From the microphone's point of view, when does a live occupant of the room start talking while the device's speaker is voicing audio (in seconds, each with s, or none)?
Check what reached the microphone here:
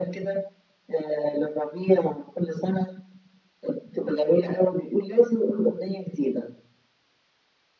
none